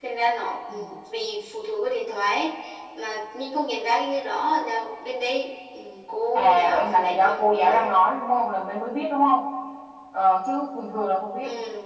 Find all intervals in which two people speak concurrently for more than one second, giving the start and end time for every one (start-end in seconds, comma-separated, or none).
6.3-7.9